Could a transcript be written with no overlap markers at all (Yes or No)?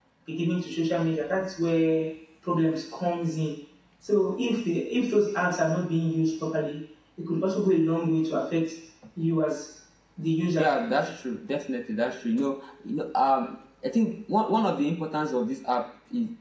Yes